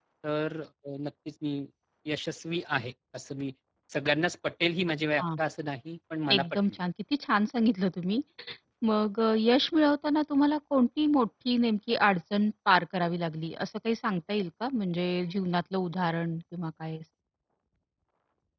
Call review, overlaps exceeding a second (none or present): none